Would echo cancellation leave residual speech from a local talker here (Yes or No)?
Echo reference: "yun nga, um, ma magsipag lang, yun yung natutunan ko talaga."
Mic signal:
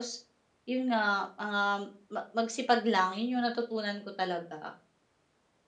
No